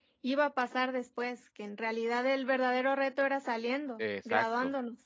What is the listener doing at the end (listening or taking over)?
taking over